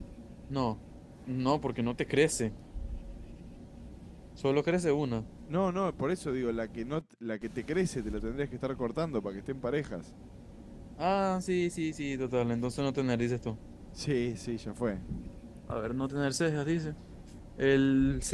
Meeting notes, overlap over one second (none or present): none